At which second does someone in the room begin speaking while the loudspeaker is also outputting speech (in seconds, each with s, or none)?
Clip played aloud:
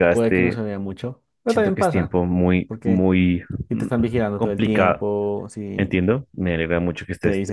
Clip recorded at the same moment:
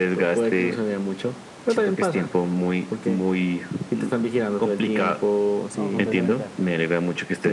5.7 s